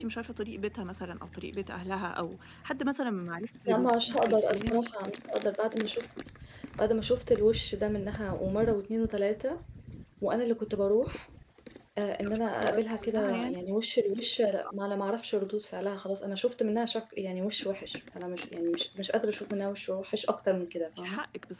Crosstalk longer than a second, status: present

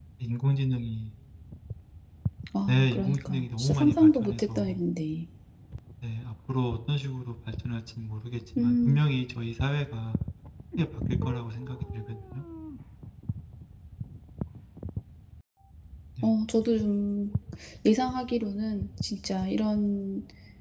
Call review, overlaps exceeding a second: present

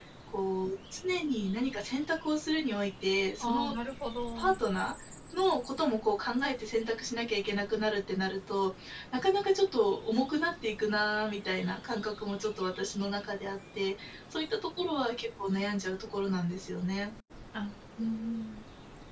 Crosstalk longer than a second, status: none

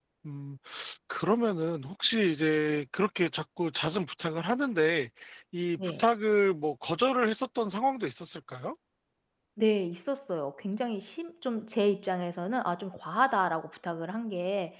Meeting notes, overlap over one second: none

